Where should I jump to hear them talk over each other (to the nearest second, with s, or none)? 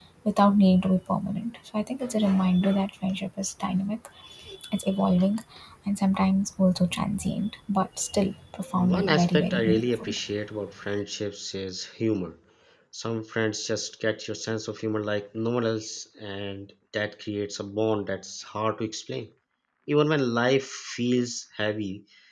9 s